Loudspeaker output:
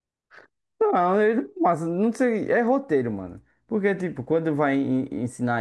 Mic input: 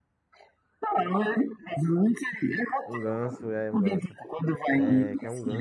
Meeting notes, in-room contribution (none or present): present